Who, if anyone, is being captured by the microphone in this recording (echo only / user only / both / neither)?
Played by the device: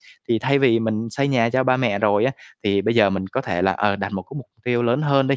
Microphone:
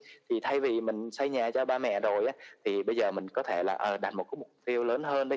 echo only